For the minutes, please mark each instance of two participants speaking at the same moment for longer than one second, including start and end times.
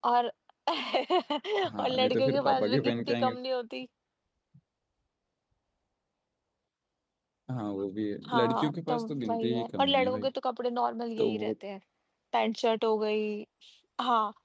1.8-3.4, 8.2-10.3

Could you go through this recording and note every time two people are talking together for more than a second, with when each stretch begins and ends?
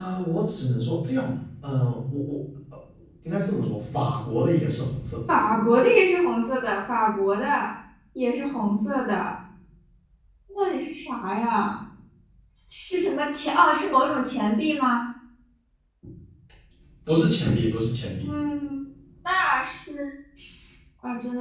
none

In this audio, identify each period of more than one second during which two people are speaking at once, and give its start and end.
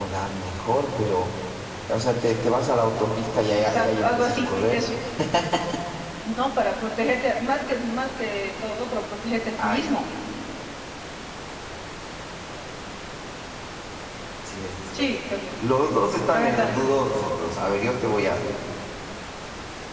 3.5-4.8

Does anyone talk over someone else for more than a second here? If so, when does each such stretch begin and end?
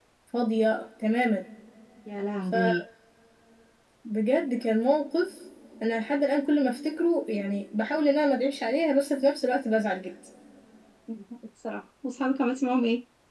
none

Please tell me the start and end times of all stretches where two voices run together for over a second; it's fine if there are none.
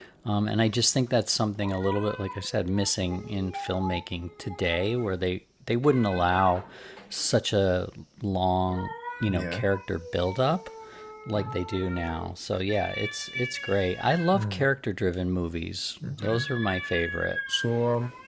none

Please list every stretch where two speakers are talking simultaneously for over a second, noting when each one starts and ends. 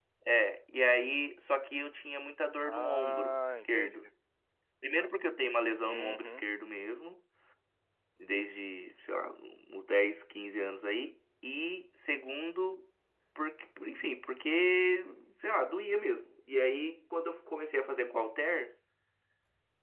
2.6-4.1

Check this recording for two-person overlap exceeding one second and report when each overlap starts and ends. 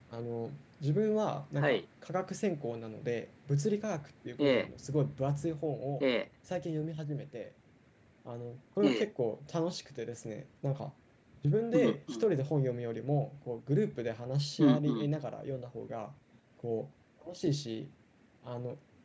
none

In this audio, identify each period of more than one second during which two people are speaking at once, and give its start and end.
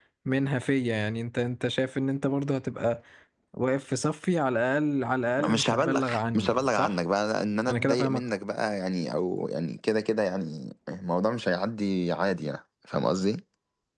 5.4-7.0

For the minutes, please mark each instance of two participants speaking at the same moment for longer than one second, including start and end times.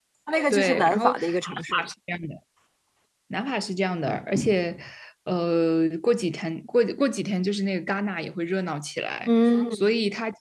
0.5-1.8

